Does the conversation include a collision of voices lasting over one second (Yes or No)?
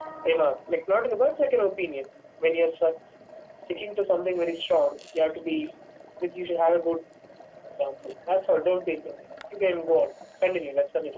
No